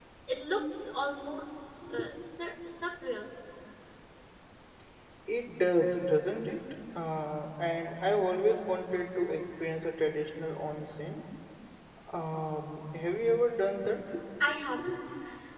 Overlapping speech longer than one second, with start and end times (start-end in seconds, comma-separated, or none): none